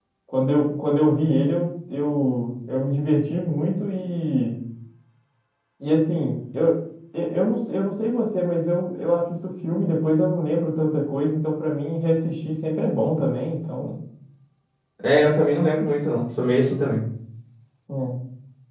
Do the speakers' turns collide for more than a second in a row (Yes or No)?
No